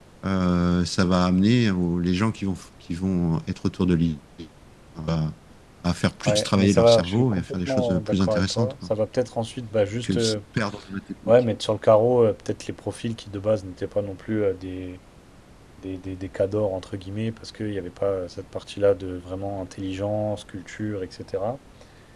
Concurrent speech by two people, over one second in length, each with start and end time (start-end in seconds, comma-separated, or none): 6.2-8.9